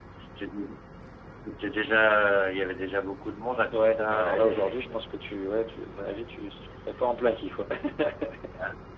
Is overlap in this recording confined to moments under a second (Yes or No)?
No